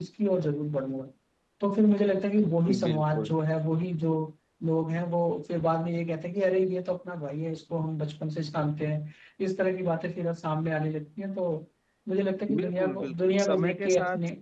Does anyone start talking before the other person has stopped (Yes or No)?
Yes